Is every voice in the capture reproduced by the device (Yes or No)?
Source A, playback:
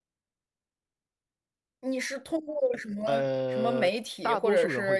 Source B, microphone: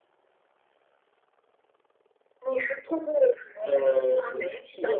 Yes